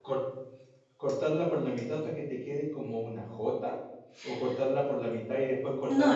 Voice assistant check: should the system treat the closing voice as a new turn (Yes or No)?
No